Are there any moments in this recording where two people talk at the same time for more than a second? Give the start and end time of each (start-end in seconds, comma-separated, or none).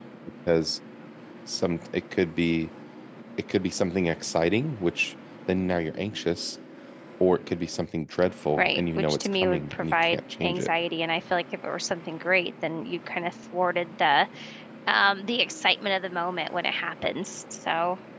8.6-10.7